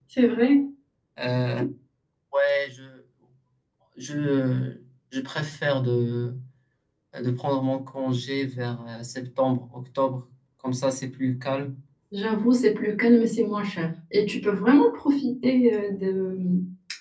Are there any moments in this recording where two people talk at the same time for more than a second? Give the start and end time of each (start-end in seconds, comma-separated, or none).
none